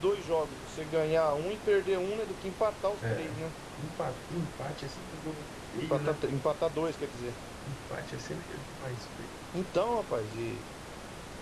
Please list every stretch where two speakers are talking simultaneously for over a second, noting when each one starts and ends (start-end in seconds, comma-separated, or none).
none